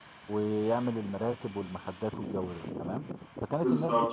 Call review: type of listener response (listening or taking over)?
listening